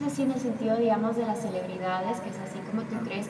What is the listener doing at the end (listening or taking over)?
listening